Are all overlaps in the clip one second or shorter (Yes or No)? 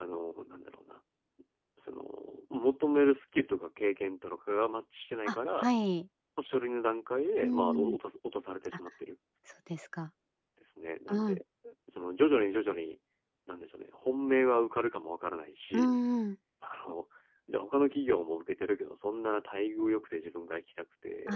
Yes